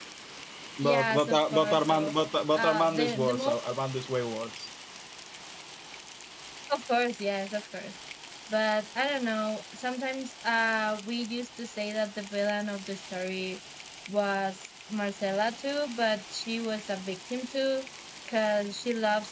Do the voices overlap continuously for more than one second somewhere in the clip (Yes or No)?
Yes